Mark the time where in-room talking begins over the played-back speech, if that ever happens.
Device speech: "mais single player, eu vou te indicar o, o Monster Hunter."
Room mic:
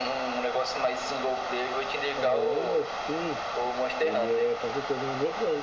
2.1 s

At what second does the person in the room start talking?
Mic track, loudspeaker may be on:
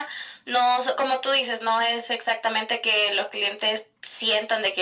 none

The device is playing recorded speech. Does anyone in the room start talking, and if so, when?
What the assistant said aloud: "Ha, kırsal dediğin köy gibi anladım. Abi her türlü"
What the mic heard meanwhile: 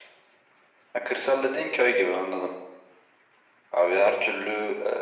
none

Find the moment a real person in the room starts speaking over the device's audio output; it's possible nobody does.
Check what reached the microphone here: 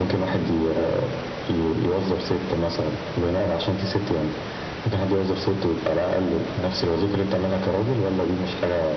none

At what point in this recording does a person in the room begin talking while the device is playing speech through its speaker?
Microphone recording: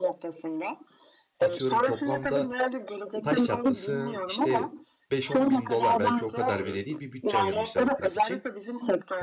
1.4 s

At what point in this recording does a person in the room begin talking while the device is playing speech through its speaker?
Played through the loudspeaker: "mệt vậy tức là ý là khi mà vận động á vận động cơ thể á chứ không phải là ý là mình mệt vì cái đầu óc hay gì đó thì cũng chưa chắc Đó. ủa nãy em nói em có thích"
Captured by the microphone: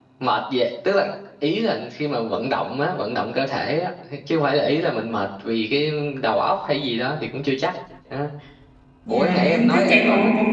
9.1 s

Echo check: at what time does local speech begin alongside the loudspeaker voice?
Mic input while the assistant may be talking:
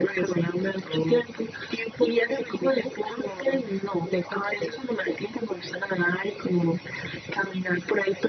none

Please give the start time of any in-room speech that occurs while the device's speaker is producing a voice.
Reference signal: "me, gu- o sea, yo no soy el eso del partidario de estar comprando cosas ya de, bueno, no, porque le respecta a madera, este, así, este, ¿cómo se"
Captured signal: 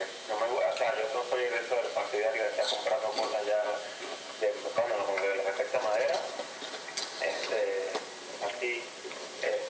none

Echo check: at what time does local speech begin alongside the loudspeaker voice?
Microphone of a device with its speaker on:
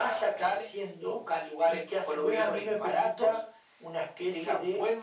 none

